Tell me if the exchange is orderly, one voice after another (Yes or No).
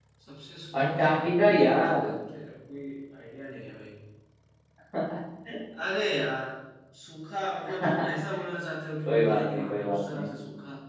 No